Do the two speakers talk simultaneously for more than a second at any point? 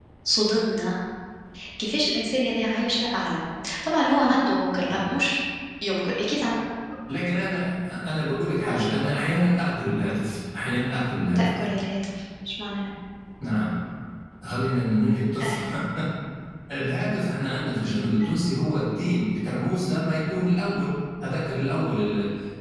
No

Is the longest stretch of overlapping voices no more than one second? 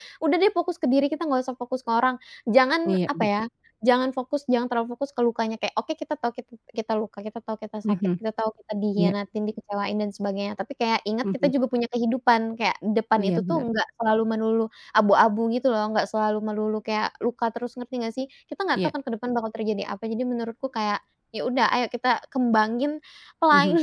Yes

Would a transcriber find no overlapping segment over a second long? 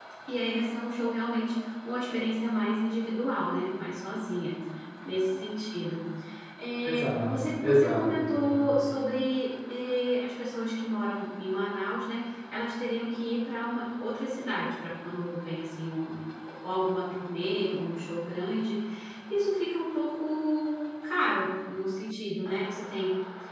No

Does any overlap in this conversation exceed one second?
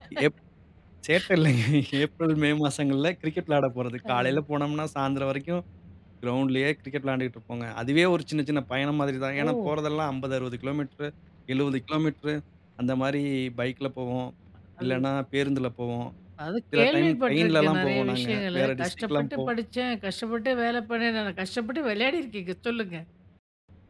Yes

